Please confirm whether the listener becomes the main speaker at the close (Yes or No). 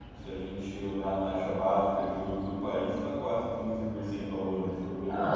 Yes